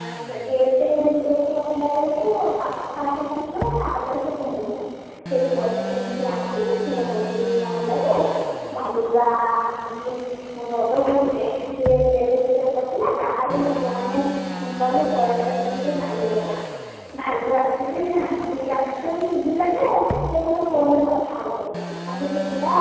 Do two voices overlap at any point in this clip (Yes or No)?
No